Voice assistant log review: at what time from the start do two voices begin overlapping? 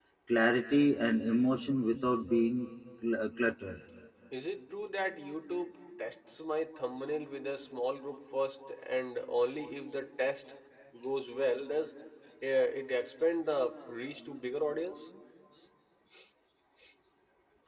none

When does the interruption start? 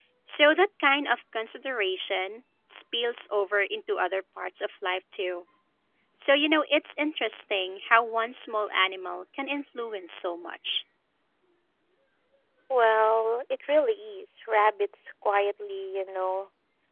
none

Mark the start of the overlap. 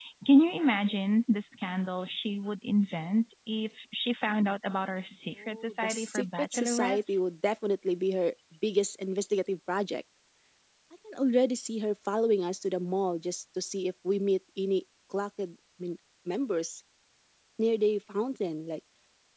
5 s

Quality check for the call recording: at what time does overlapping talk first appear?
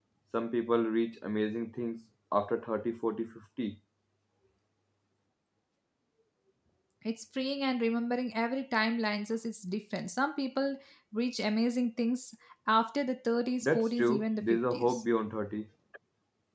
14 s

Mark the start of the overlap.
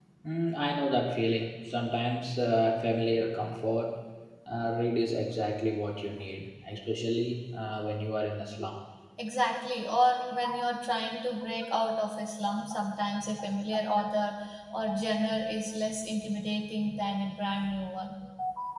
none

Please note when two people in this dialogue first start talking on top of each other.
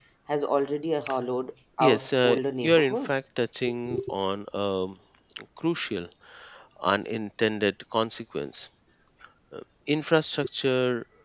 2 s

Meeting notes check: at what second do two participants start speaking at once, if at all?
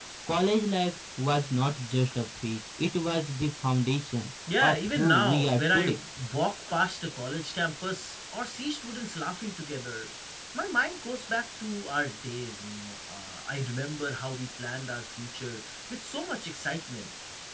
4 s

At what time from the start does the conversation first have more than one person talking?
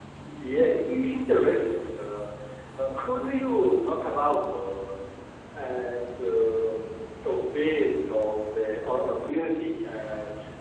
none

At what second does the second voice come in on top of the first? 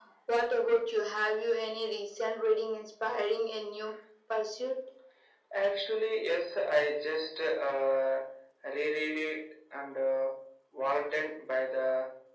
none

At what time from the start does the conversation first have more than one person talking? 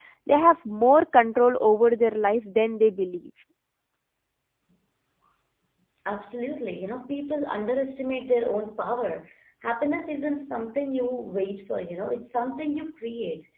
none

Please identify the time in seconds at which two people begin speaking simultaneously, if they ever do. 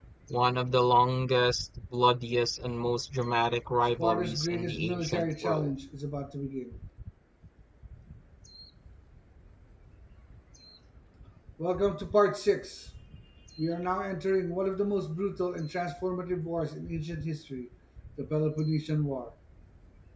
4 s

